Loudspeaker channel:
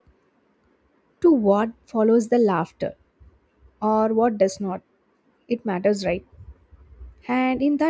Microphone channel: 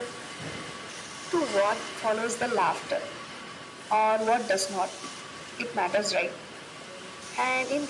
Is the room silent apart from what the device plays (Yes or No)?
Yes